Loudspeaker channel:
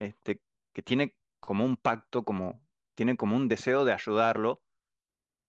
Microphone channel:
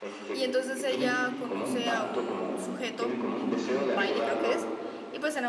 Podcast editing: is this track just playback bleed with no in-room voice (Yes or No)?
No